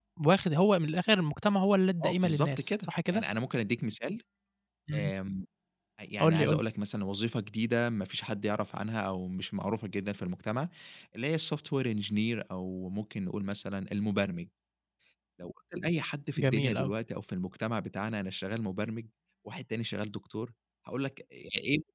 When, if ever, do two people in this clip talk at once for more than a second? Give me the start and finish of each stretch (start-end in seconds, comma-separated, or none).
2.0-3.2